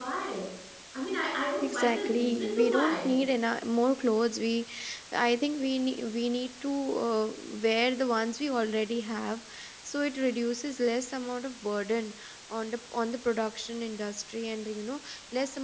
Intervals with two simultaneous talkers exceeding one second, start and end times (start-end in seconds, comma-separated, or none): 1.6-3.1